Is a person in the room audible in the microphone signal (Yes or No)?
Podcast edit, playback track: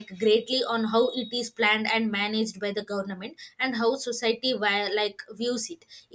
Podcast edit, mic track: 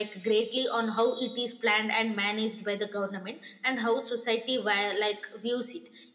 No